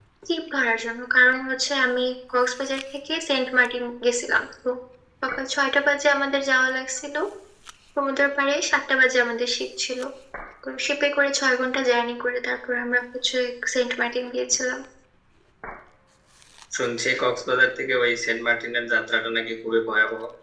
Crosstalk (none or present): none